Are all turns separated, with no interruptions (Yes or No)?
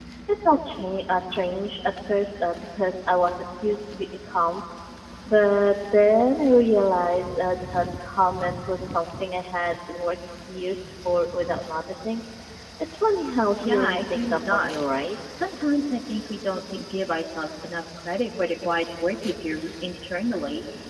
No